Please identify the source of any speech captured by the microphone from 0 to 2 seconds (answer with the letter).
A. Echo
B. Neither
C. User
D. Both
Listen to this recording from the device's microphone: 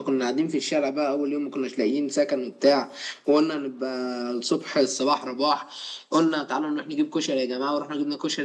A